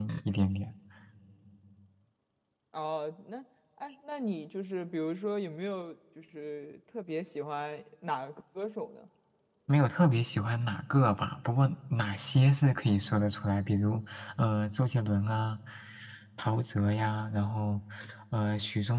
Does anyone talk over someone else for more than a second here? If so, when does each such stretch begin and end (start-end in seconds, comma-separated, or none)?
none